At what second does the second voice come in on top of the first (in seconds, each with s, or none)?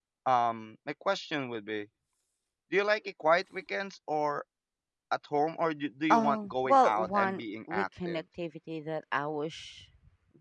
6.1 s